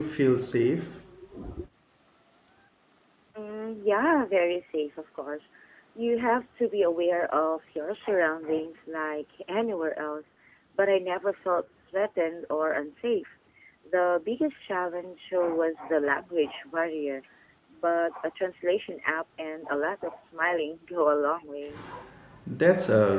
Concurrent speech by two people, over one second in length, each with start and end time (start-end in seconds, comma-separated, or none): none